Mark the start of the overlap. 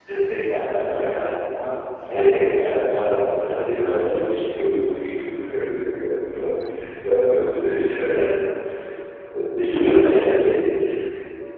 2.8 s

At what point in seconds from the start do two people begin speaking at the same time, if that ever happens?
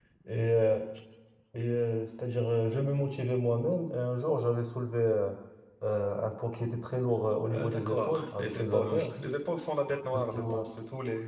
7.5 s

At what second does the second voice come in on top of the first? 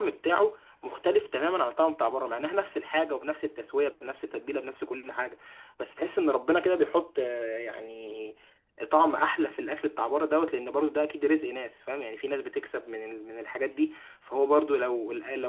none

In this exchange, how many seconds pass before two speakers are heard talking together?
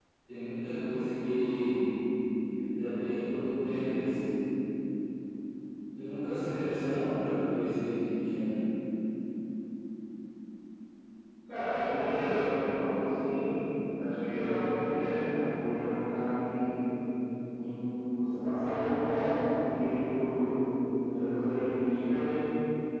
none

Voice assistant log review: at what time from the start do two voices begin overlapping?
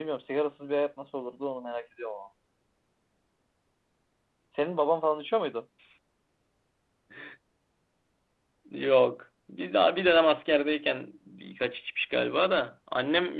none

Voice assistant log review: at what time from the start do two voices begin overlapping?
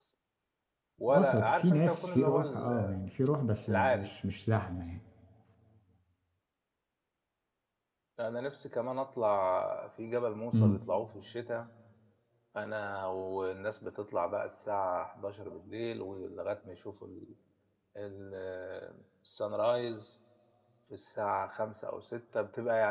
1.1 s

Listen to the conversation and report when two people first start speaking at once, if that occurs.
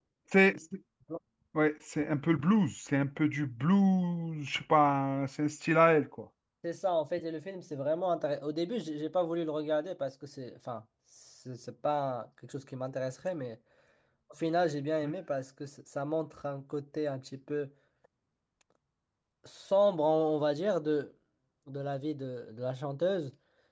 none

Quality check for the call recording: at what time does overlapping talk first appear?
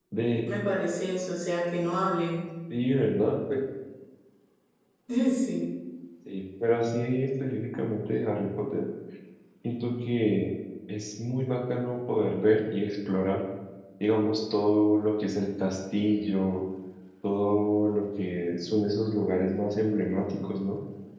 none

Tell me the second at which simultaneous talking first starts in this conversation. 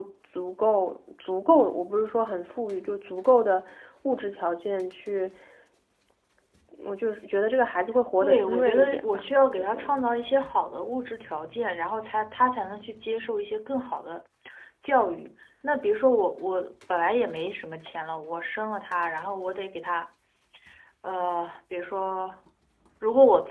8.2 s

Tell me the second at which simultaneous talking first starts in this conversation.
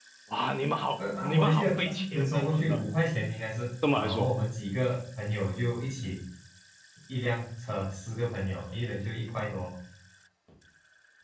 1.0 s

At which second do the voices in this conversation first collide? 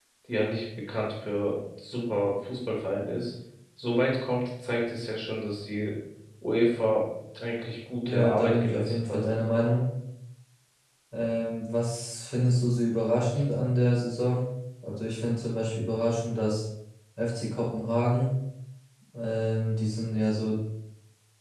8.0 s

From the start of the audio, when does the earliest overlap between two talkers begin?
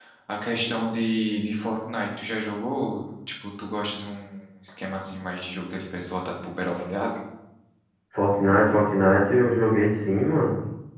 none

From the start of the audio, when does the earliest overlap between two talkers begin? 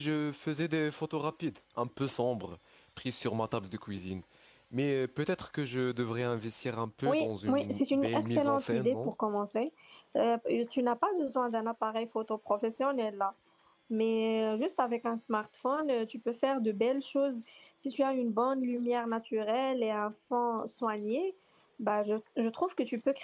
7.0 s

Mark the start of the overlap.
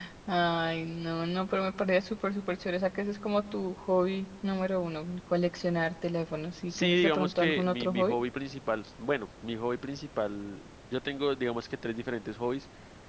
6.7 s

